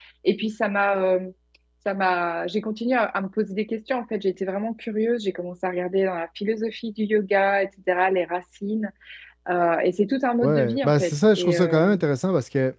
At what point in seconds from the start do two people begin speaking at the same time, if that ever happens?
10 s

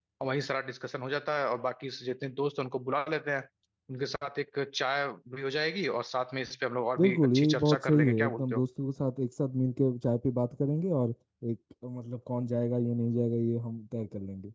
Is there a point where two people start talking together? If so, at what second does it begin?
7 s

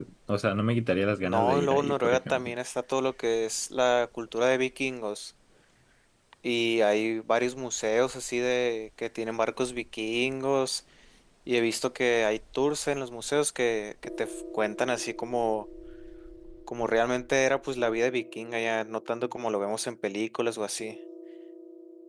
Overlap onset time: 1 s

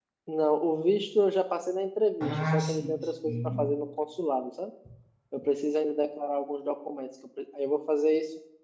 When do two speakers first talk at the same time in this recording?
2 s

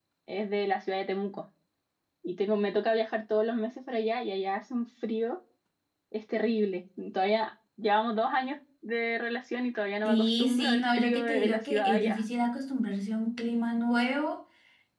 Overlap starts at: 10 s

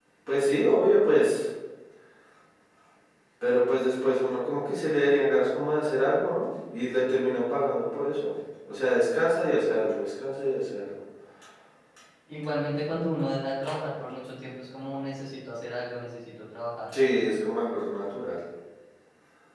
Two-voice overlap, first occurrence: none

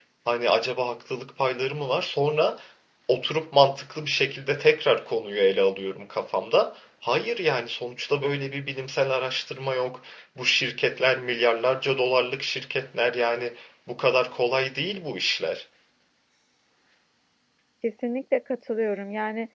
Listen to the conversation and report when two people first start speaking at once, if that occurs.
none

